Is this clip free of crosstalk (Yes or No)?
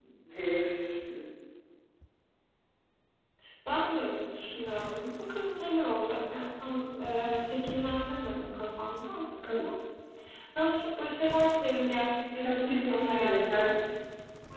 No